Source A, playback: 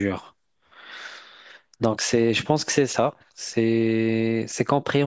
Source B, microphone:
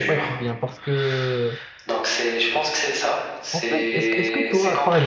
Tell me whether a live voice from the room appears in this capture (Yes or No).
Yes